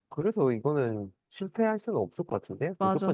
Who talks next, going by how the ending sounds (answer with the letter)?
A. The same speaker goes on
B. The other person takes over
B